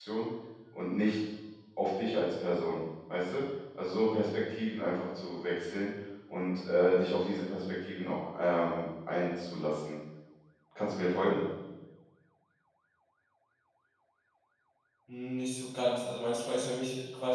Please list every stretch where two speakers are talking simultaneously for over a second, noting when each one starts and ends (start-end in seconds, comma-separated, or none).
none